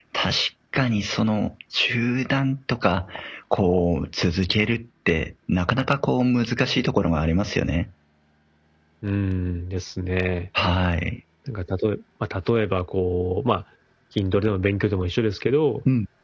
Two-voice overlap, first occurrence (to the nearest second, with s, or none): none